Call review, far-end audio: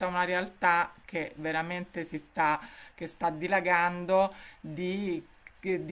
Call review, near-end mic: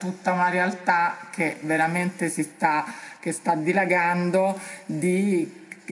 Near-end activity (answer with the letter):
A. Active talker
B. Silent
B